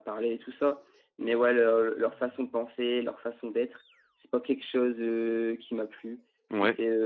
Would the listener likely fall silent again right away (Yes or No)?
Yes